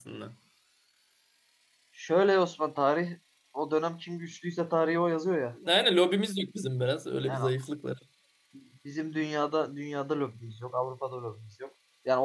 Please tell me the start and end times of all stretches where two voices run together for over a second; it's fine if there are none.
none

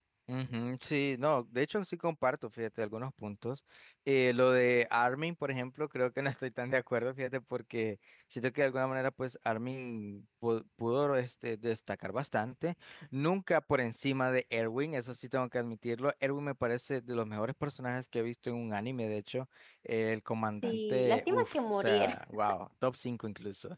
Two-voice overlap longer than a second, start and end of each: 20.6-22.1

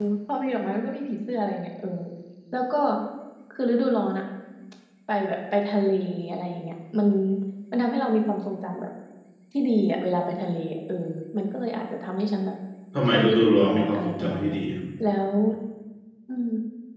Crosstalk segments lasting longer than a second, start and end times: 13.1-14.6

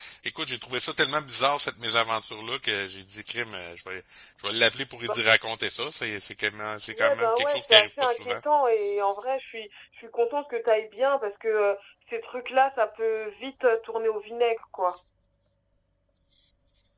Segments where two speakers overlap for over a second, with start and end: 6.9-8.4

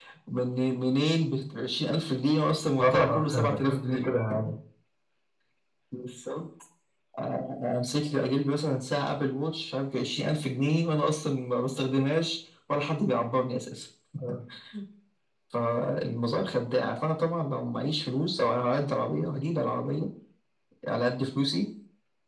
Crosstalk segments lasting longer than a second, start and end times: 2.8-4.1

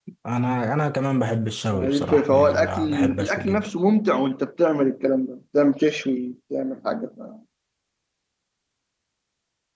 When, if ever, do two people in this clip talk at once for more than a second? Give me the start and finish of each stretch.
1.7-3.7

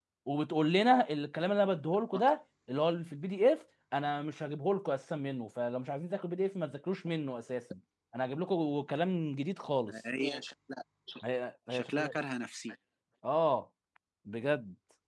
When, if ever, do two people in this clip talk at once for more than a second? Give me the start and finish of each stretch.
none

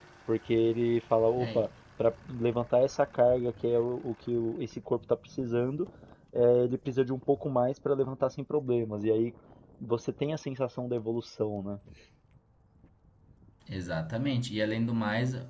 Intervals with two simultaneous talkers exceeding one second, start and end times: none

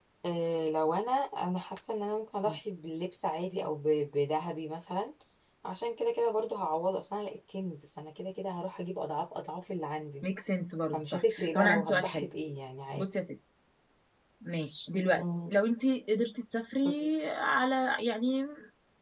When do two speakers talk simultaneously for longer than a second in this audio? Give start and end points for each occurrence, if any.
10.9-12.3

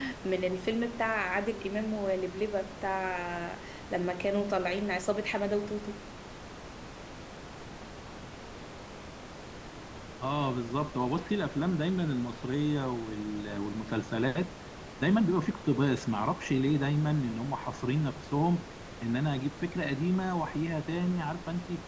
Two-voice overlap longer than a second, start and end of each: none

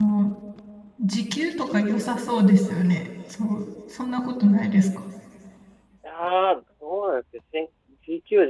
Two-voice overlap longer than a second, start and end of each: none

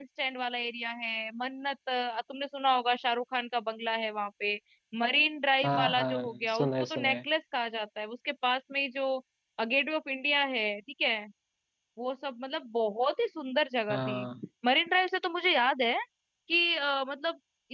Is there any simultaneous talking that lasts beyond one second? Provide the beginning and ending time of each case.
5.6-7.2

